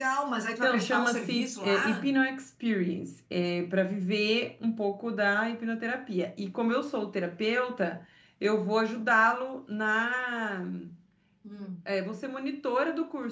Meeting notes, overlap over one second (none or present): present